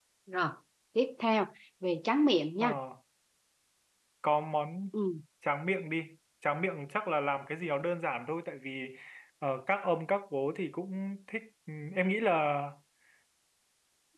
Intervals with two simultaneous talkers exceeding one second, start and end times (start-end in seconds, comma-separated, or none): none